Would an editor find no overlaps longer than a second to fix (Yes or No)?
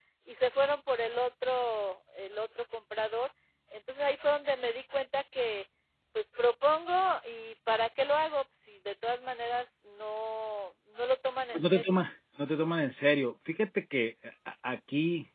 Yes